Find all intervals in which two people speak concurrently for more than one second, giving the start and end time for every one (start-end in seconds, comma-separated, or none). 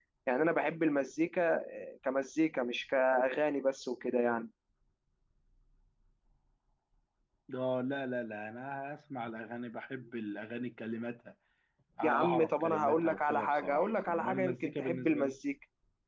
12.0-15.3